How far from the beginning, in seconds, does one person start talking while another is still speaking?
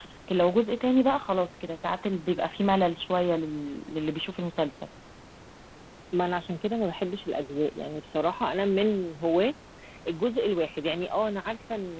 none

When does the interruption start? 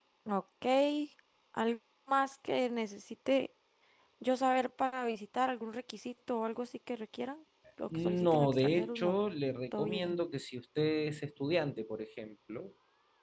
8 s

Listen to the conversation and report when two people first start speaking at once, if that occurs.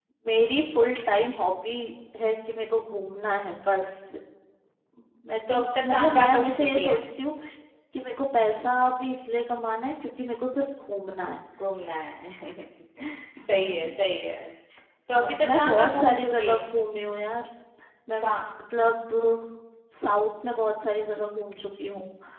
5 s

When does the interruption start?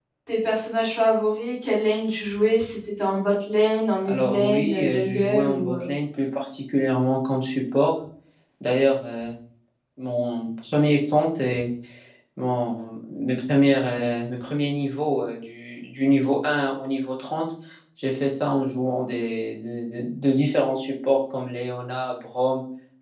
4 s

